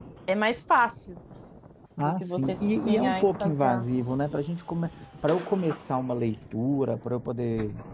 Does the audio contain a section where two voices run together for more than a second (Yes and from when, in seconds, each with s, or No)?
Yes, from 2.0 s